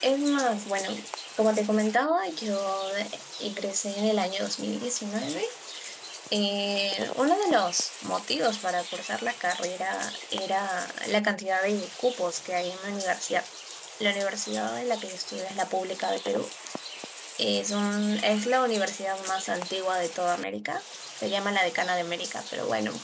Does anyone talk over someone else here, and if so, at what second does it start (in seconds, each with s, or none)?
none